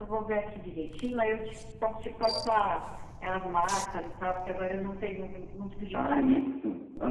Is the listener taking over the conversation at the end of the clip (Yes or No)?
Yes